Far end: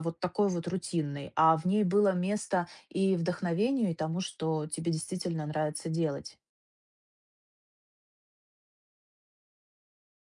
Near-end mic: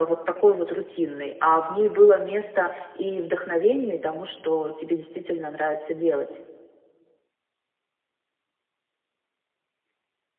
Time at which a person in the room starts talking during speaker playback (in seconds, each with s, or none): none